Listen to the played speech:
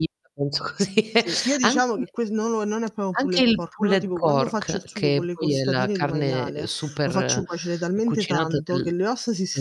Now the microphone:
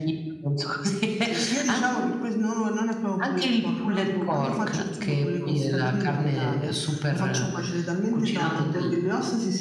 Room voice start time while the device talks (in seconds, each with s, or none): none